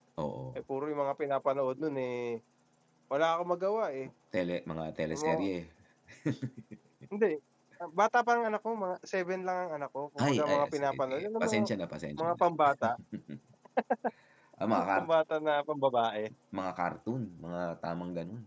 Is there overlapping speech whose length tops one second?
Yes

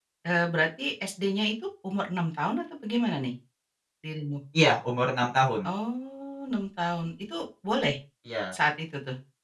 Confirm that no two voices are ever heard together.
Yes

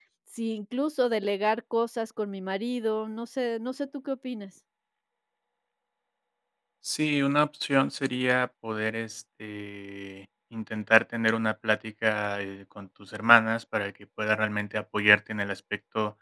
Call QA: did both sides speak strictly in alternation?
Yes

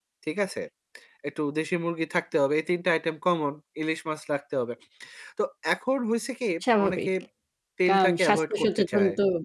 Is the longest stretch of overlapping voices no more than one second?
No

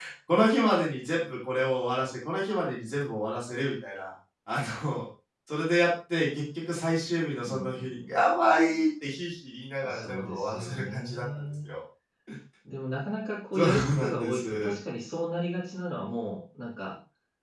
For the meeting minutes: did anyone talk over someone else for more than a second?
Yes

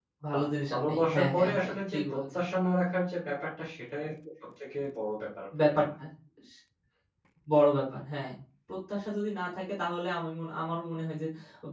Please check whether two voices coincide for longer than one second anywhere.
Yes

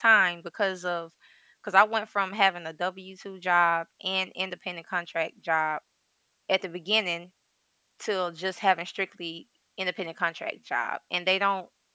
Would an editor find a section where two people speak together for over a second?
No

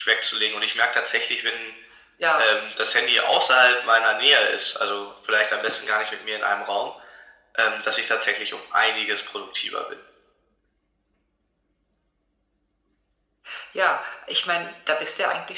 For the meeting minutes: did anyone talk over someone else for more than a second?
No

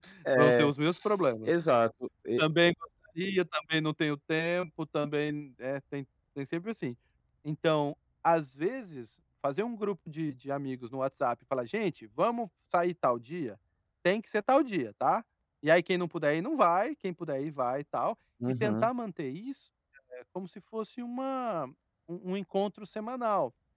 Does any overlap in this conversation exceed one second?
No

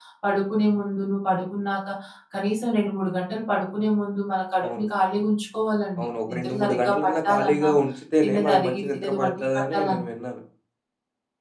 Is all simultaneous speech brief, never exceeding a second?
No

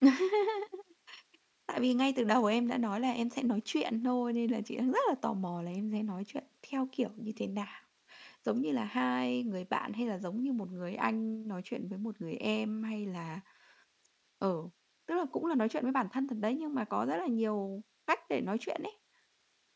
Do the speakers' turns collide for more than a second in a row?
No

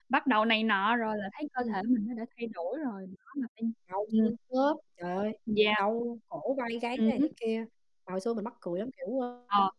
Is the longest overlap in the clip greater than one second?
No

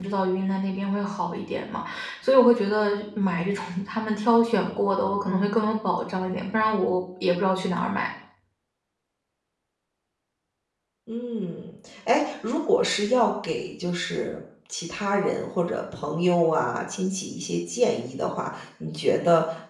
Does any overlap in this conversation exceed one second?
No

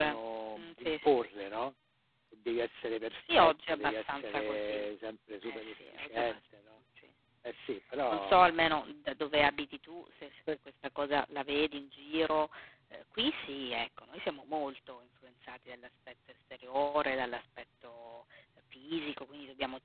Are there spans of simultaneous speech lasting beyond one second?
Yes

